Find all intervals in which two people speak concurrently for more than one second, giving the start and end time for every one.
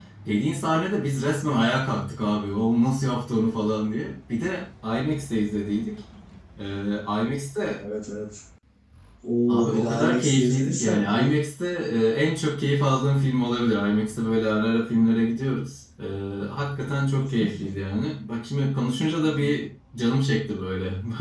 9.5-11.3

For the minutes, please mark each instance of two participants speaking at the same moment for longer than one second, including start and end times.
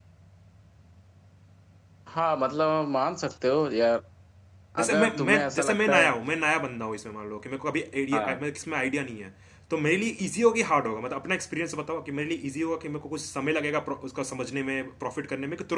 4.9-6.1

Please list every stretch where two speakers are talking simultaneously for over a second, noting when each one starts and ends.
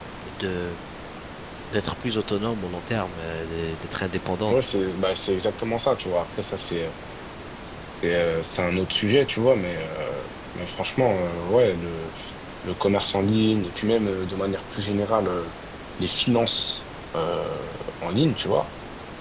none

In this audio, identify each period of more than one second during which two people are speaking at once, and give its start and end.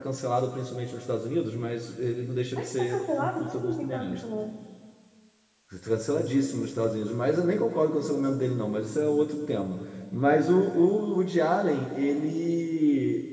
2.6-4.2

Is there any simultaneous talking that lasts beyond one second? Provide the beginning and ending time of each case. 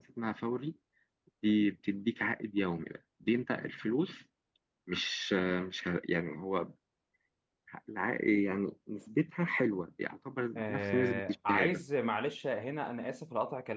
10.6-11.8

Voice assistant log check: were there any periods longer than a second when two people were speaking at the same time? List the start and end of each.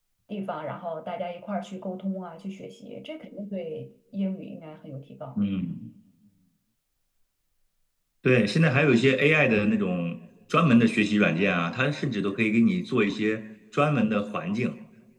none

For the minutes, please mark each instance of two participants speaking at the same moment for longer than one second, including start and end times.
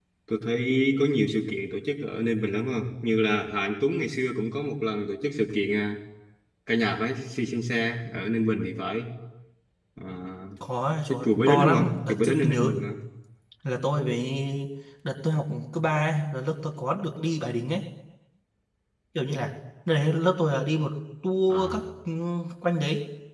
11.1-12.7

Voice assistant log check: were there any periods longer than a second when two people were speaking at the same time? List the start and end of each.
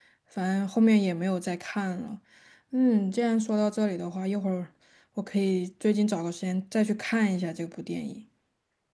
none

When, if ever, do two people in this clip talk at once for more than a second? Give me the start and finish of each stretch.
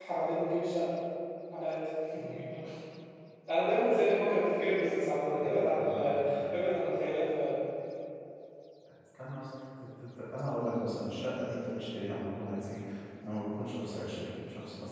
5.4-6.6

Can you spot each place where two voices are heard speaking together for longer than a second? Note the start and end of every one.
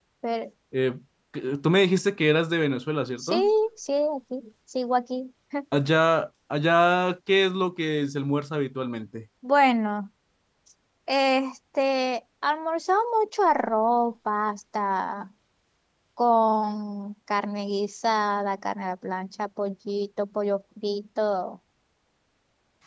none

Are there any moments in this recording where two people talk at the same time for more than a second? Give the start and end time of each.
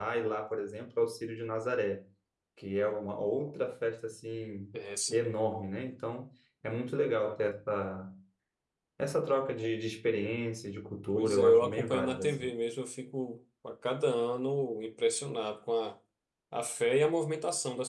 11.1-12.5

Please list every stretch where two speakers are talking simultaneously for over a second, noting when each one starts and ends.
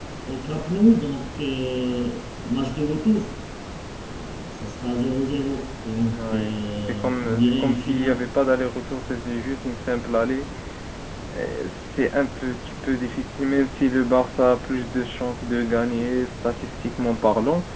6.1-8.2

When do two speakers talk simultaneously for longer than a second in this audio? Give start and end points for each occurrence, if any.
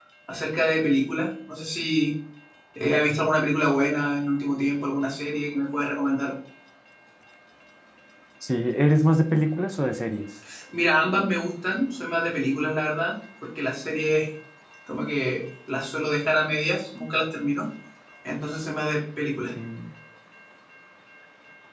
none

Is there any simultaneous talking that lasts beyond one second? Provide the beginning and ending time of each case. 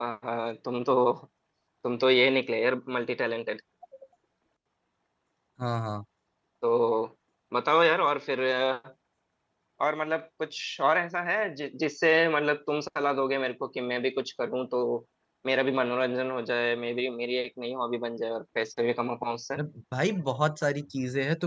none

